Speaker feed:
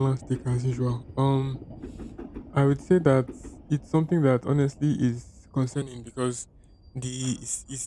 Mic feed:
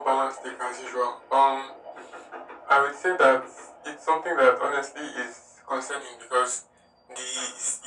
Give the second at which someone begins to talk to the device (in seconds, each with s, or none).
none